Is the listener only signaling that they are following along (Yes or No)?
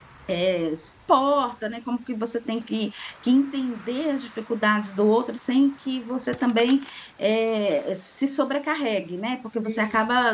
Yes